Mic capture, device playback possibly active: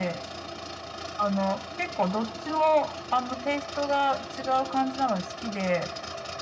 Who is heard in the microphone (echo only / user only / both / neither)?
echo only